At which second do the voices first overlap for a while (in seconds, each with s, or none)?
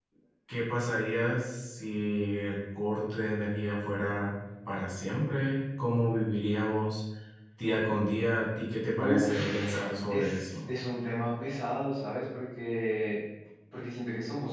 8.9 s